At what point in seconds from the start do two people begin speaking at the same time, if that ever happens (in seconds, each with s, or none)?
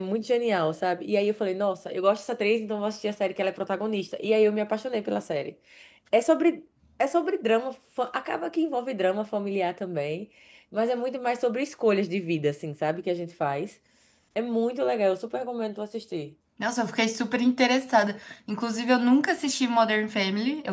none